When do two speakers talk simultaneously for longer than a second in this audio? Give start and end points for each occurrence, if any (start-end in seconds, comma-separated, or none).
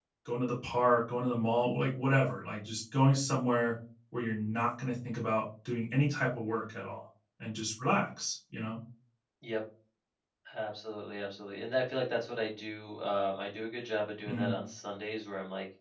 none